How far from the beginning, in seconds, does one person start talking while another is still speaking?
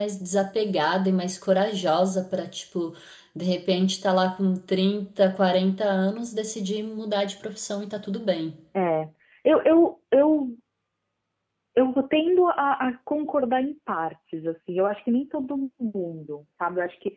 none

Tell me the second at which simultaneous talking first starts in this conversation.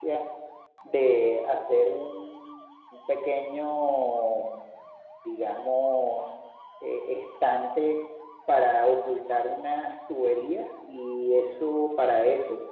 none

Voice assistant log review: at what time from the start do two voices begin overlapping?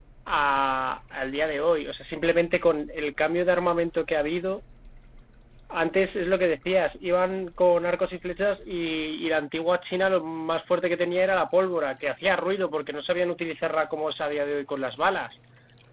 none

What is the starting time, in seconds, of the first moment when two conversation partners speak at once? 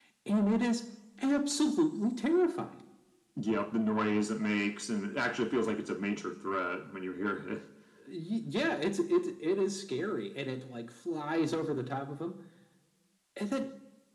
none

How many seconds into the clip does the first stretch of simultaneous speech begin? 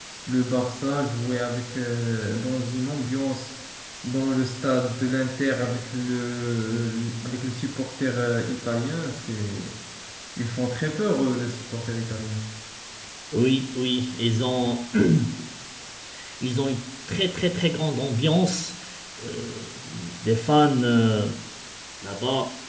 none

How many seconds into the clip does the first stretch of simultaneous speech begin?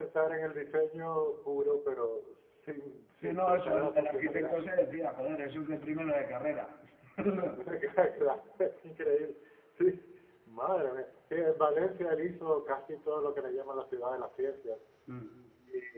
3.2 s

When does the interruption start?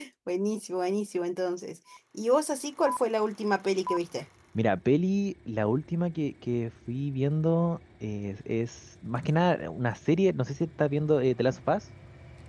none

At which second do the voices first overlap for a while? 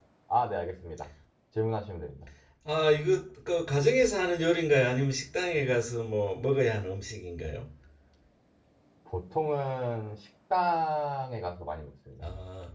none

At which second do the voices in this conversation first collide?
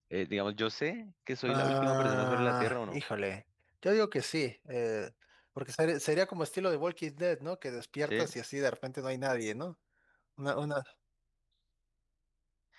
1.5 s

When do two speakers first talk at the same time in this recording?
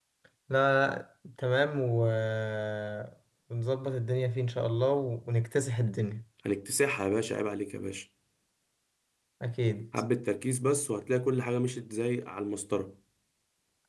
none

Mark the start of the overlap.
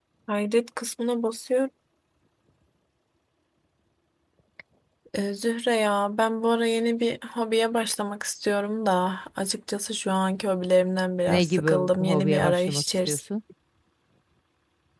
11.3 s

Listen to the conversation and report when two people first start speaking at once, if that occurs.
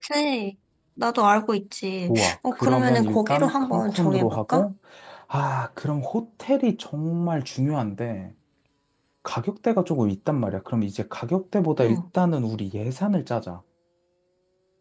2.1 s

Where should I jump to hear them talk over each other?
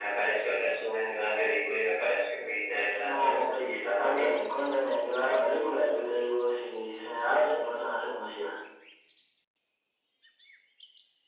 3.0 s

